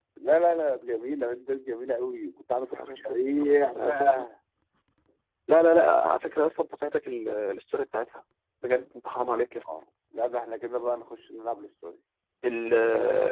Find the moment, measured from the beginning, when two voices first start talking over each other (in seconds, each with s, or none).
2.7 s